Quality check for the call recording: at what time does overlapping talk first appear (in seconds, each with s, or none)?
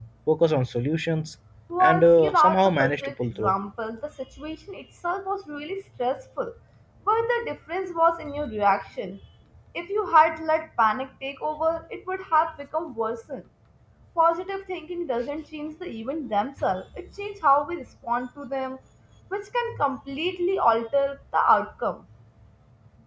1.8 s